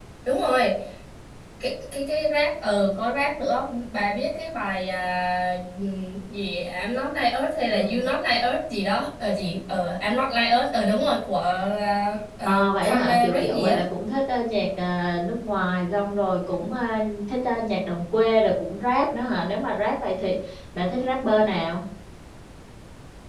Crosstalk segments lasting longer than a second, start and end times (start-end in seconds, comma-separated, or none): 12.4-13.8